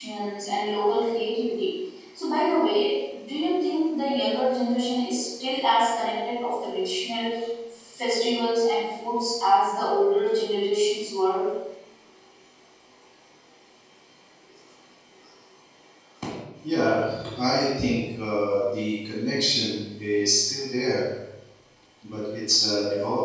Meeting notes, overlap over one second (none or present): none